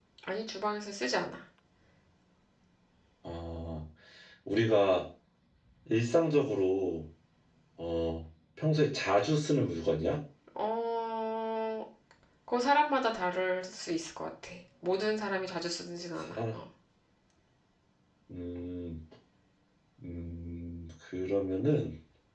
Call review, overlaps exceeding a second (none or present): none